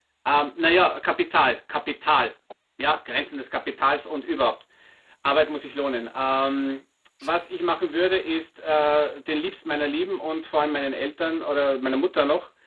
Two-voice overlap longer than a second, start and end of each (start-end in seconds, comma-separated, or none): none